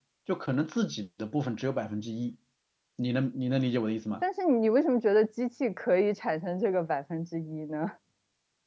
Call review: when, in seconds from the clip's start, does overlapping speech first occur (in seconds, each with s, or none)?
none